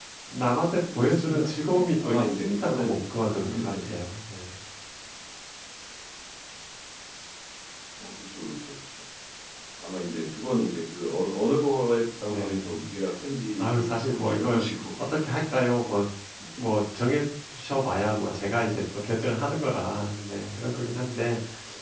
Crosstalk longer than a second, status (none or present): present